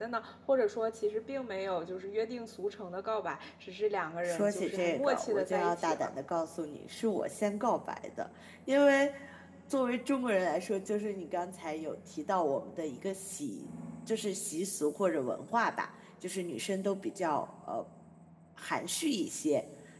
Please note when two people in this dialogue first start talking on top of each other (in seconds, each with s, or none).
4.2 s